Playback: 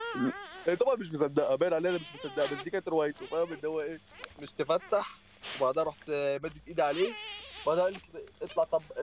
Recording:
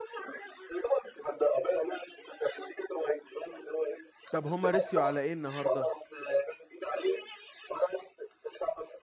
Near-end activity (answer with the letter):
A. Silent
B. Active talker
B